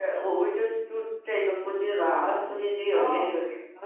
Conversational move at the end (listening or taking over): listening